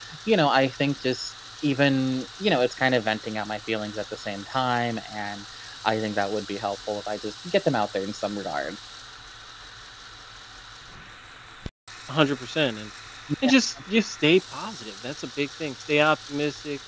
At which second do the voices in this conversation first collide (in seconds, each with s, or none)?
none